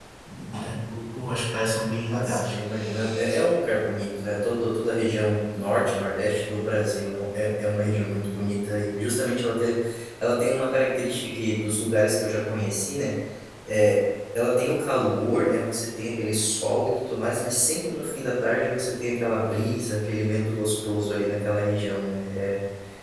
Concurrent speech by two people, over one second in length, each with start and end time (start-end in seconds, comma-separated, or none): none